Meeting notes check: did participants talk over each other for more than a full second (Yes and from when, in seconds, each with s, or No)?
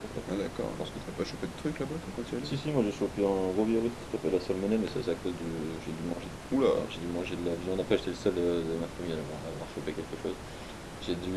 No